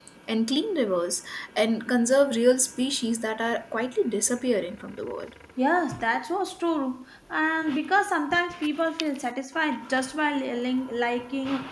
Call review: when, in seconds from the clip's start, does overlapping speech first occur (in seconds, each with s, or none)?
none